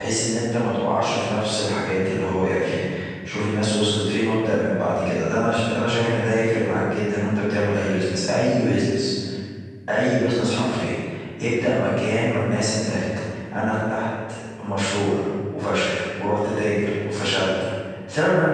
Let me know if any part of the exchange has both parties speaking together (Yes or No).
No